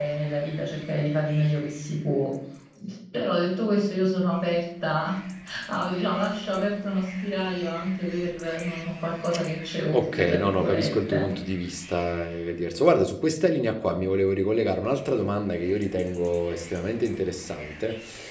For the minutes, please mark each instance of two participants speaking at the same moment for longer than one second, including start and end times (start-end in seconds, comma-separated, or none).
9.9-11.3